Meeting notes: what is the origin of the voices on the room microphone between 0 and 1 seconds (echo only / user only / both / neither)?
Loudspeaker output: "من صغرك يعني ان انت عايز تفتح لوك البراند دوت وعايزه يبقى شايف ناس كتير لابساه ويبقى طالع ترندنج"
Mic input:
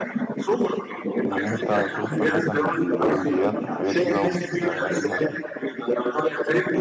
echo only